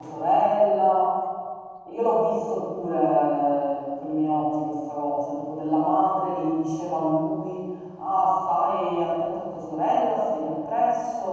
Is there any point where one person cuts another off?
No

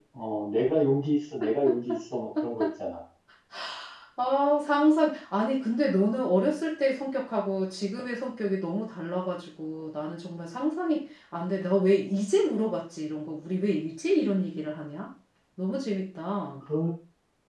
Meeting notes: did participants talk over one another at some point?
No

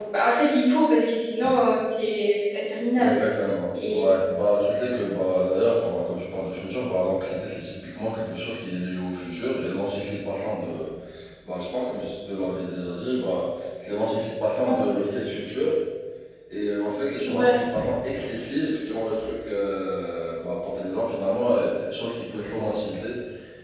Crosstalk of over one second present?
No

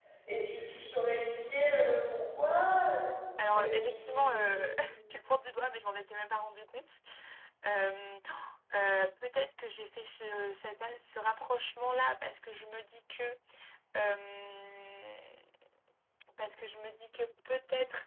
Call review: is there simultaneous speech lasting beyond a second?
Yes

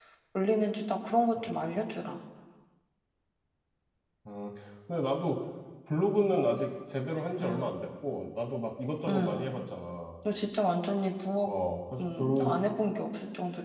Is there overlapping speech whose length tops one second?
No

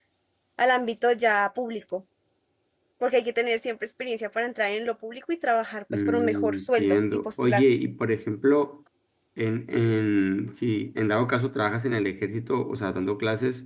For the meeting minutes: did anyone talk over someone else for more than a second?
Yes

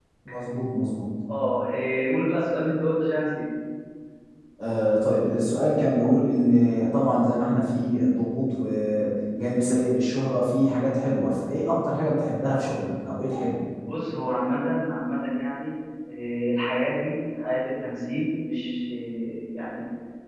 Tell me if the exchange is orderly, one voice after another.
Yes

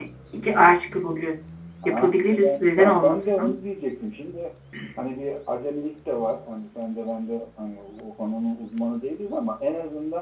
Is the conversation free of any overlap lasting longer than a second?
No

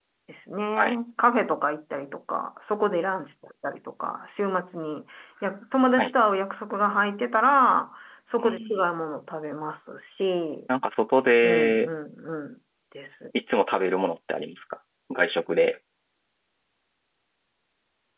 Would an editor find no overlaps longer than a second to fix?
Yes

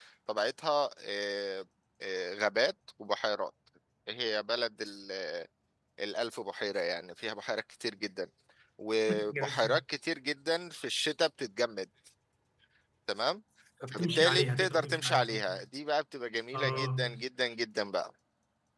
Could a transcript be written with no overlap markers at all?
No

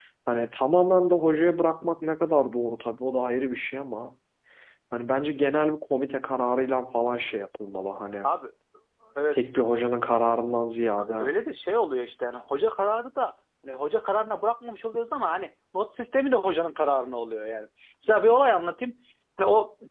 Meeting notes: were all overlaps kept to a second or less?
Yes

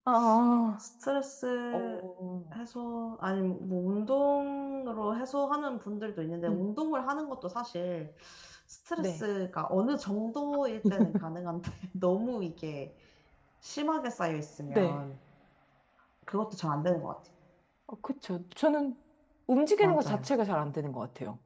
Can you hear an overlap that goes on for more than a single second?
No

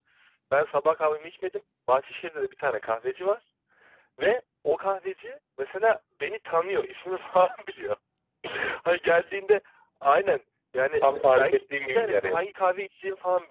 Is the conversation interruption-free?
No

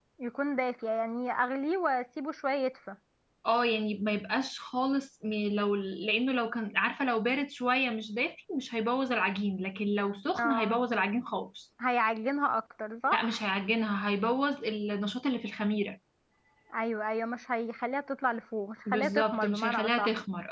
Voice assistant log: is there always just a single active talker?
No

